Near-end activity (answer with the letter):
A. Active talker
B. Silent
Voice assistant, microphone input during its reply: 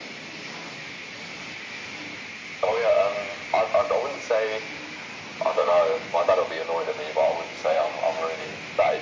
B